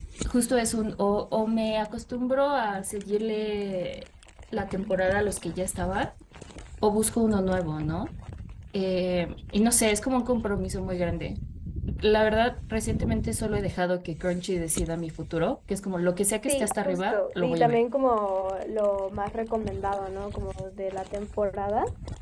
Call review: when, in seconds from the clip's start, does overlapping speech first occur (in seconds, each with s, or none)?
16.5 s